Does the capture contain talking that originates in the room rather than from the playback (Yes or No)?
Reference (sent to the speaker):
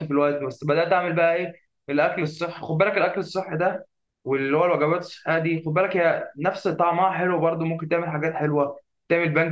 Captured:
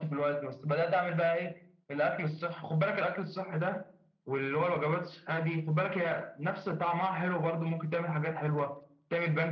No